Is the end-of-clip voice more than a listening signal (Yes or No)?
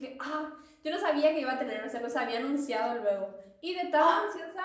No